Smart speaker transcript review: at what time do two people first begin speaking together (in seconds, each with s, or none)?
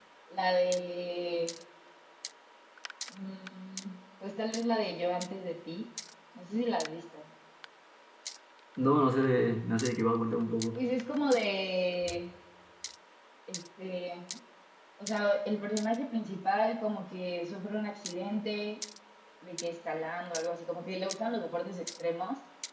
none